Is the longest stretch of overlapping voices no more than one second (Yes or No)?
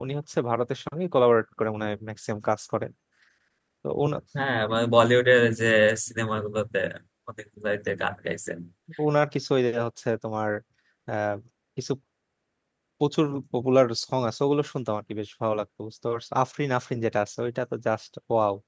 Yes